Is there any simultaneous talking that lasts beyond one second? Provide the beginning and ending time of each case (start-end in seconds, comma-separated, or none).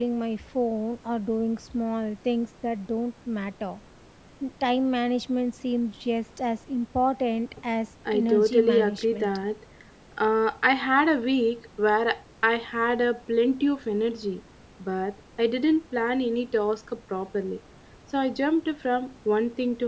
8.1-9.4